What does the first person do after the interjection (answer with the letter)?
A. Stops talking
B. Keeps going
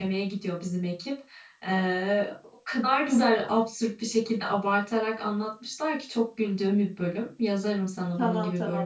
A